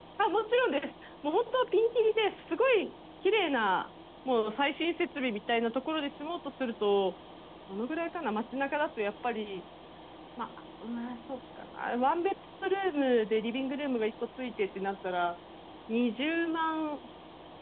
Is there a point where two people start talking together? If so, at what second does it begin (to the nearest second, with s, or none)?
none